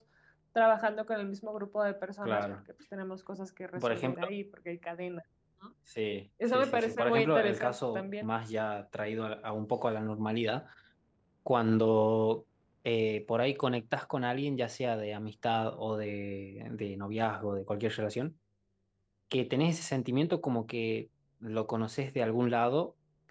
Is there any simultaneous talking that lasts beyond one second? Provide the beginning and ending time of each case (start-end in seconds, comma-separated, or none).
6.5-8.3